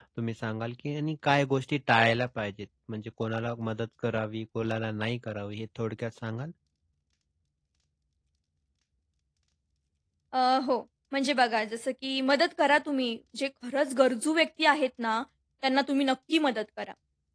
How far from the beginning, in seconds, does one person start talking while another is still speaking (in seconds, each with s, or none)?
none